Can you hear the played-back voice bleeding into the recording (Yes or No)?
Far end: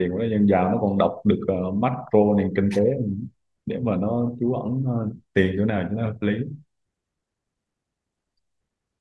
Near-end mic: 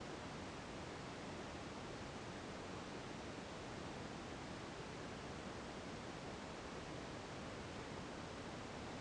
No